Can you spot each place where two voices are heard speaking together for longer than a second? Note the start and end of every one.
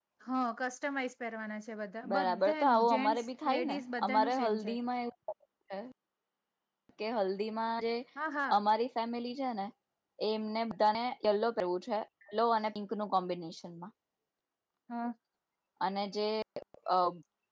2.1-4.7

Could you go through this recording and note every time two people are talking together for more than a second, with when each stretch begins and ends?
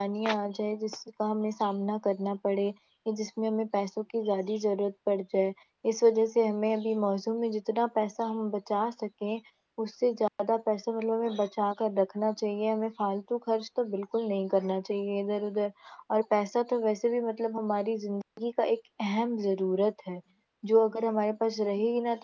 none

